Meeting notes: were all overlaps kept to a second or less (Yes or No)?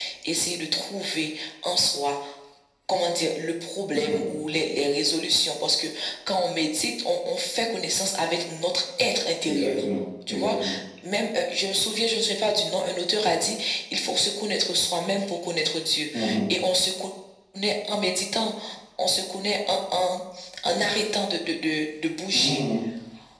Yes